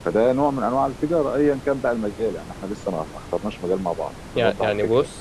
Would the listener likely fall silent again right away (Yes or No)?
No